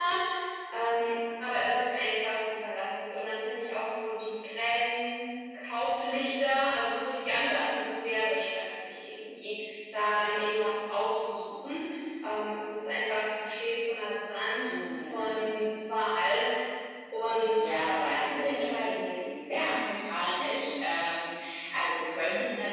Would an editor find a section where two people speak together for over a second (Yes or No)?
Yes